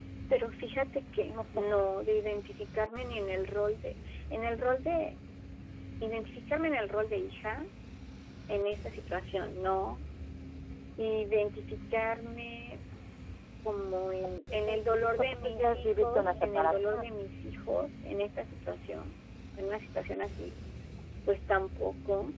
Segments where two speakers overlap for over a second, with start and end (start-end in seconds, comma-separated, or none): 15.2-17.1